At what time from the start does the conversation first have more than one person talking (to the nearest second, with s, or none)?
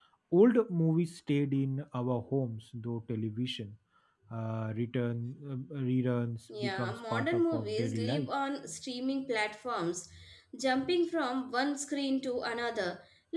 6 s